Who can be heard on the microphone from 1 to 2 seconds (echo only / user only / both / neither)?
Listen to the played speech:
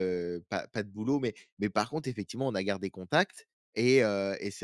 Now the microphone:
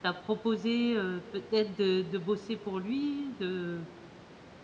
user only